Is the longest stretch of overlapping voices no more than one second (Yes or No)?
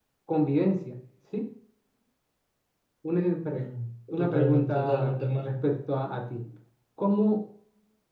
No